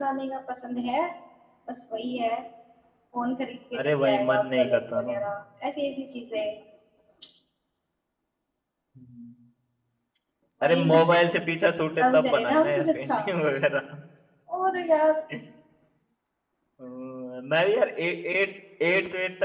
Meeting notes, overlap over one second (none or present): present